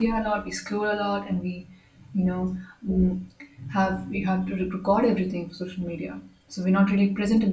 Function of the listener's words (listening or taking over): listening